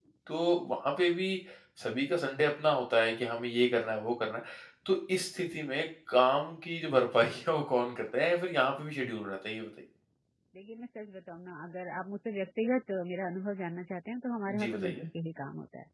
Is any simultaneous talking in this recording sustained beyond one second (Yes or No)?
No